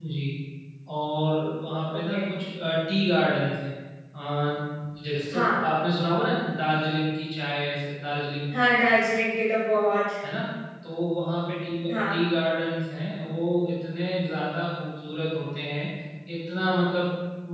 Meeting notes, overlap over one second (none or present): none